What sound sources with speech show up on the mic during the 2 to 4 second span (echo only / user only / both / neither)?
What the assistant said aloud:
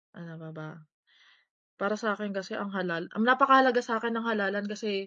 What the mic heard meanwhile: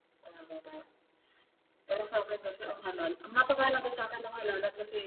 echo only